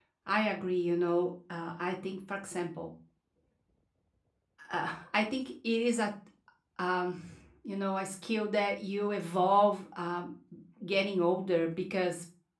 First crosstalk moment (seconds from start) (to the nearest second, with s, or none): none